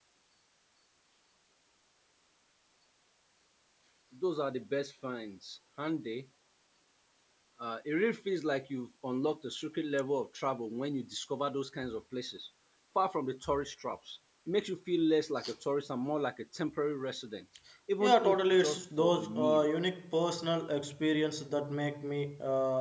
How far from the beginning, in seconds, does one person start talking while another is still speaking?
18.0 s

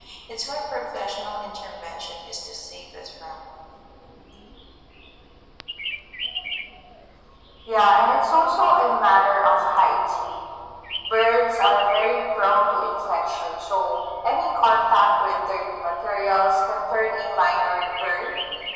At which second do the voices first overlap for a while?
none

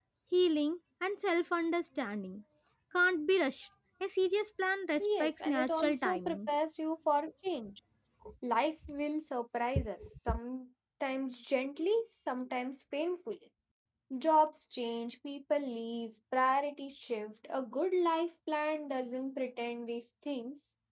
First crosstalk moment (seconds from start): 5.0 s

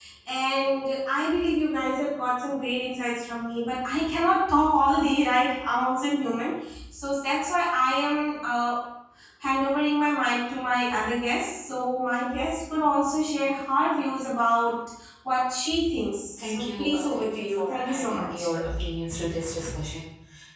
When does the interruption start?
16.4 s

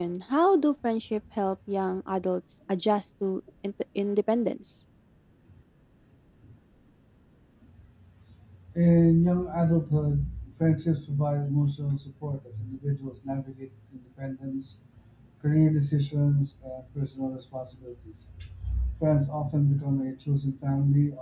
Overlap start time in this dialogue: none

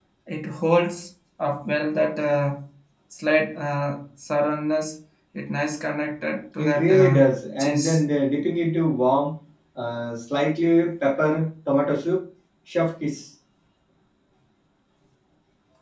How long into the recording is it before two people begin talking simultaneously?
6.6 s

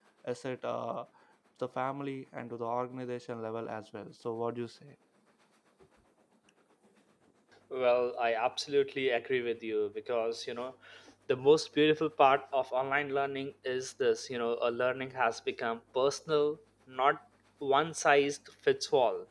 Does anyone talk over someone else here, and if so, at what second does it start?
none

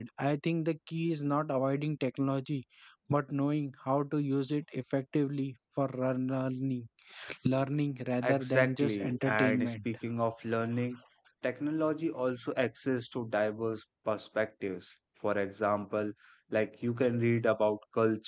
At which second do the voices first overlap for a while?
8.2 s

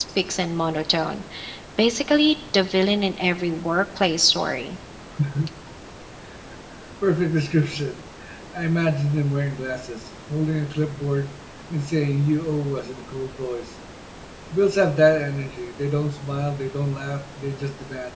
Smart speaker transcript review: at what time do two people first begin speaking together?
none

